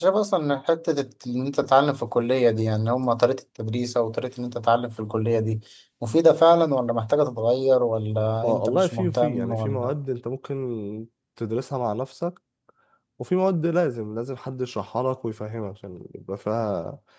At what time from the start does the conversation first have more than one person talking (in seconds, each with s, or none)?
8.4 s